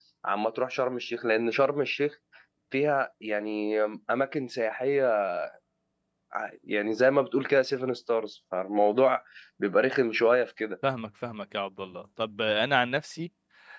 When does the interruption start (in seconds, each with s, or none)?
none